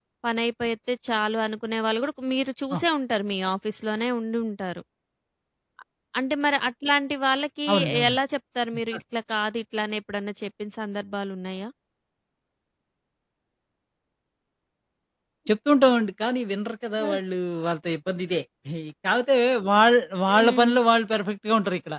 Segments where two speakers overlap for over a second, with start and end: none

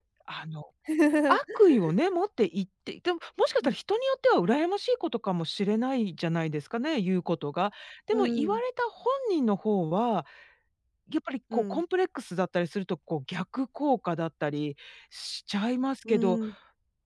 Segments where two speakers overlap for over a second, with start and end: none

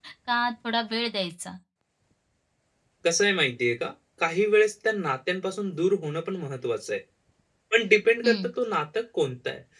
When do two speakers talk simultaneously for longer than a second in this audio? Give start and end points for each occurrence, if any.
none

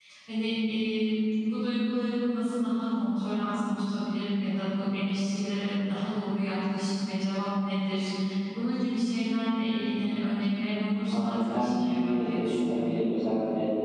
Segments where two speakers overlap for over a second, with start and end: 11.1-13.0

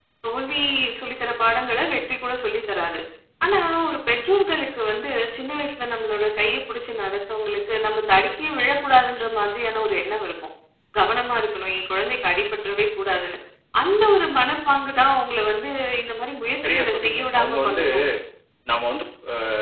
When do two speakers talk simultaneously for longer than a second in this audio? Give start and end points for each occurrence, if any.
16.6-17.8

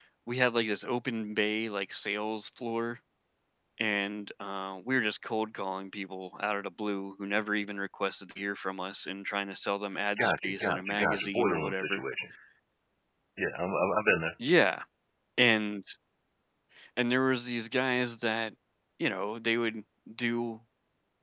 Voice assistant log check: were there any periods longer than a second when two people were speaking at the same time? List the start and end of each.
10.2-12.0

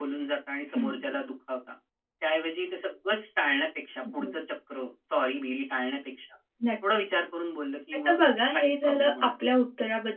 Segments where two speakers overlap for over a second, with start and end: 8.1-9.3

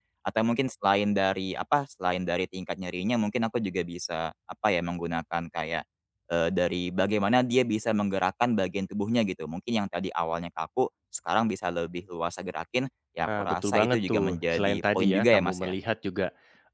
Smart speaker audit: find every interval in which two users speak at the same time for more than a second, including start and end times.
13.2-15.8

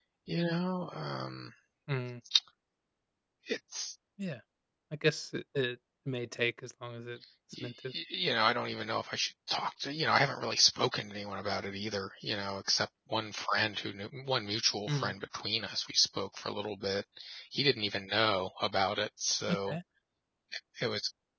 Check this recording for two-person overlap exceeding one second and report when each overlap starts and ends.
none

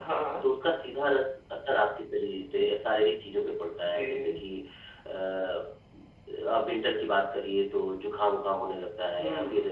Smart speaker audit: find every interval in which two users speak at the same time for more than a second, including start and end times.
none

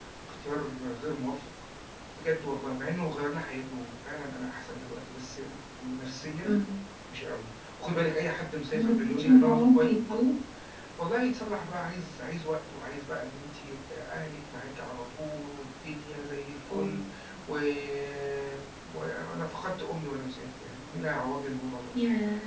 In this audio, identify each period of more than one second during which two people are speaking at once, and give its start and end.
8.7-9.9

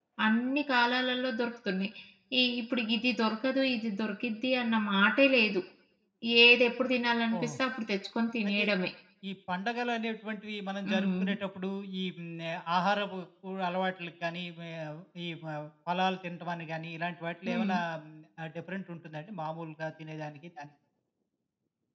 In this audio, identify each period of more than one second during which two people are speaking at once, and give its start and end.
none

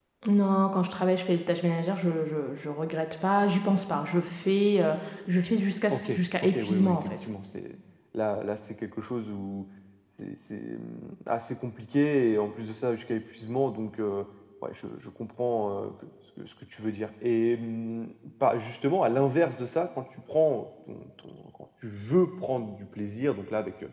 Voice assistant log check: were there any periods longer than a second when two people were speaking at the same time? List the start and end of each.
5.9-7.1

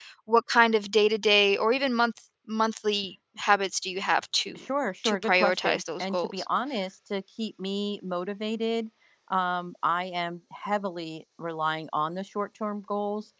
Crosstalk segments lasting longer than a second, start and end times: 5.0-6.5

